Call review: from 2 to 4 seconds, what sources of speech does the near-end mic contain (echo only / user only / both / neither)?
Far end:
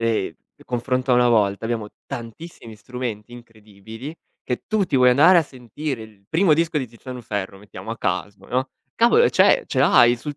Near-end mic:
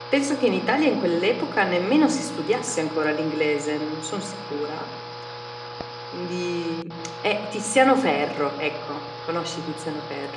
user only